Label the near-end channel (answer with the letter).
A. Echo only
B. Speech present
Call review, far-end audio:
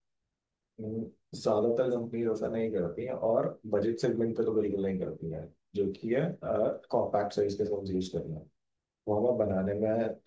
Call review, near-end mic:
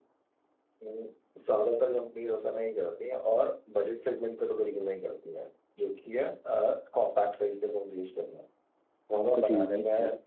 B